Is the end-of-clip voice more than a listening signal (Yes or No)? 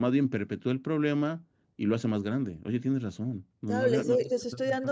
Yes